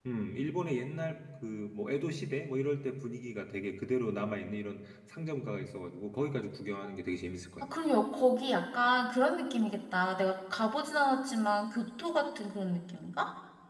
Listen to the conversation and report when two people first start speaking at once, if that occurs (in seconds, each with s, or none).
none